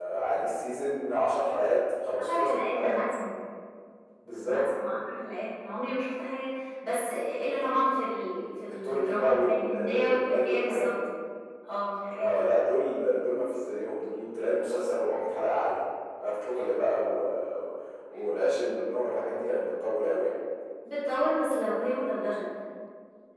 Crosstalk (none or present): present